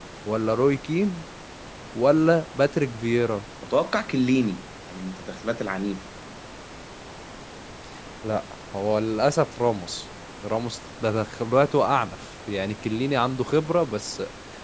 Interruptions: none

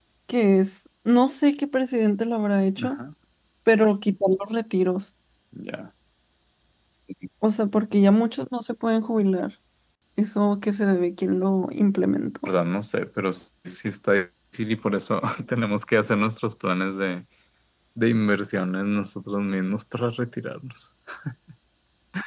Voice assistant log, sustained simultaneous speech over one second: none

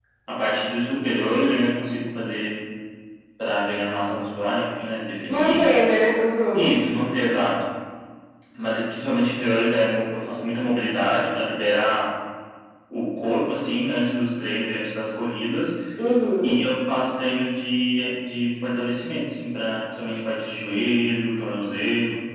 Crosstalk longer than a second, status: none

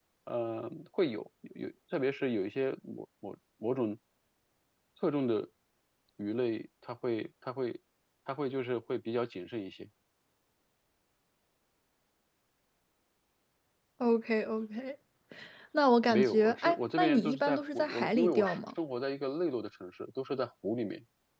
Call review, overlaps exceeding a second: present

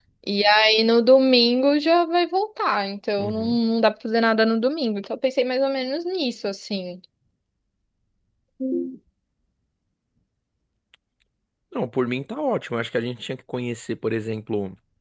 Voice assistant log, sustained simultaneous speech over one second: none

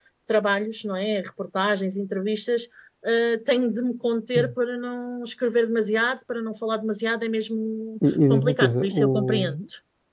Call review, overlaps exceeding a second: present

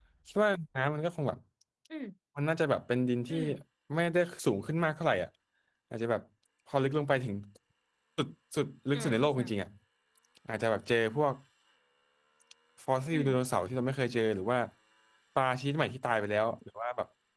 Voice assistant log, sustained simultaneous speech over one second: none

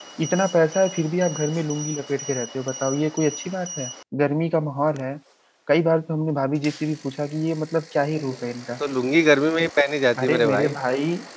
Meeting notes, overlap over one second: none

